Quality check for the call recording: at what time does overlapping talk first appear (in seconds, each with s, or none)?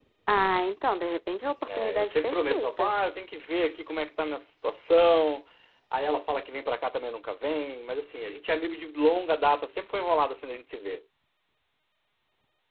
1.7 s